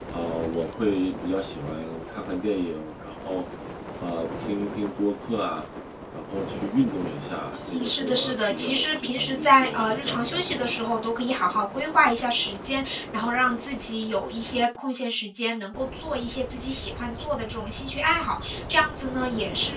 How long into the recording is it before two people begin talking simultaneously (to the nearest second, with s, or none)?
8 s